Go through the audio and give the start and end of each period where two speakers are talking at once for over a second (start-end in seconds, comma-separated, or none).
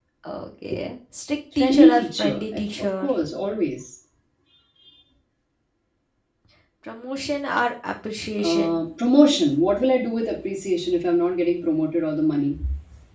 1.6-3.1